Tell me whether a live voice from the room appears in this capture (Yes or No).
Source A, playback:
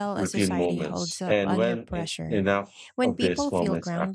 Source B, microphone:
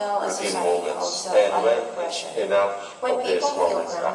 No